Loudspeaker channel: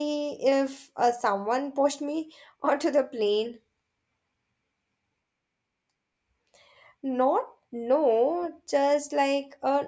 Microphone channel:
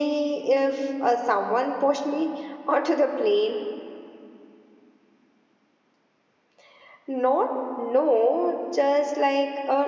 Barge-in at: none

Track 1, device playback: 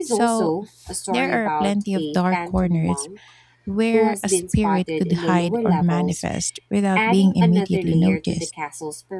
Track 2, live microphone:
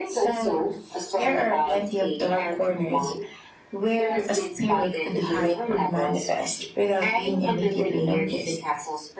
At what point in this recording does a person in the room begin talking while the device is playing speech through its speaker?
none

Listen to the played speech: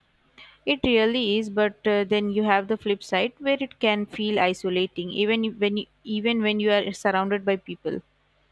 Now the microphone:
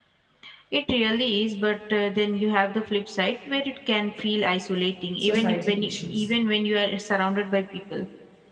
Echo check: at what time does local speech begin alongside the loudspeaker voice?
5.2 s

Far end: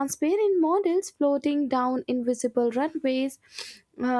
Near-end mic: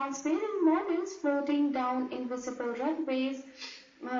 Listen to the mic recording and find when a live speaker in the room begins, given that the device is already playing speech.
none

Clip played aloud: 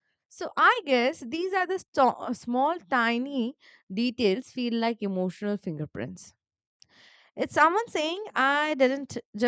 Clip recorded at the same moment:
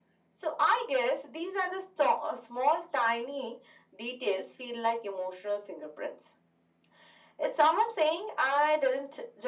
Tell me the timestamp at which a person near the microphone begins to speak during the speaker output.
none

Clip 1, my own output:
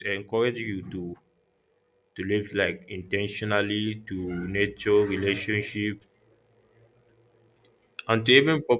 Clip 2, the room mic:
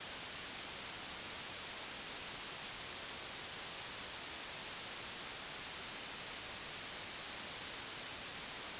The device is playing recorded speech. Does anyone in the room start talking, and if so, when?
none

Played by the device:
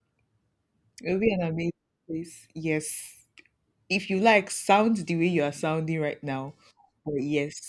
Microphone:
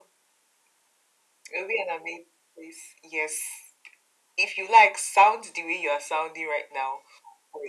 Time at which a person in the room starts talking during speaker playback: none

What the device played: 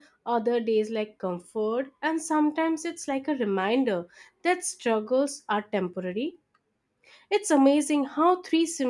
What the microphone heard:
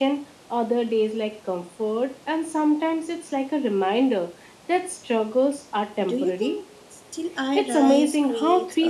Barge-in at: 6.0 s

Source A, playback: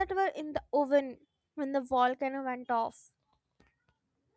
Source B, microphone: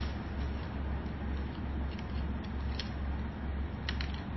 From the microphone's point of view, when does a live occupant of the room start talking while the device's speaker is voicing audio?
none

